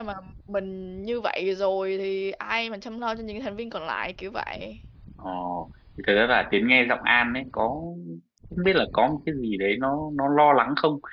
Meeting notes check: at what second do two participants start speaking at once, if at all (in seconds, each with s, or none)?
none